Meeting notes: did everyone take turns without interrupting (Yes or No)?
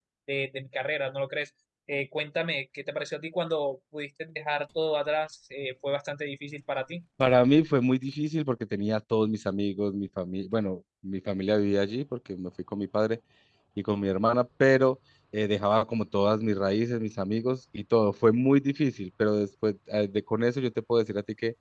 Yes